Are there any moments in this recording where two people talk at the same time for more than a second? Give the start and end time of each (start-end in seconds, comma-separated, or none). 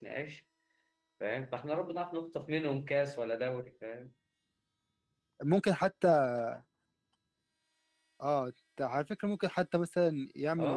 none